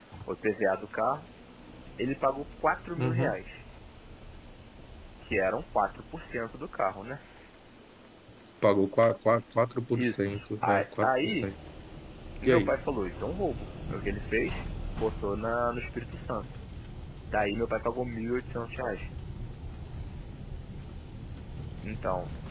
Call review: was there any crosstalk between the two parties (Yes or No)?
Yes